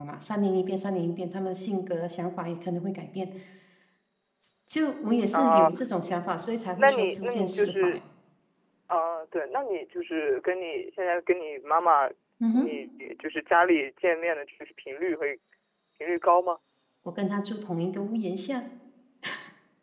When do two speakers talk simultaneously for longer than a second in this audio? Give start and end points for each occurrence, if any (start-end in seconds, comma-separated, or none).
6.8-8.0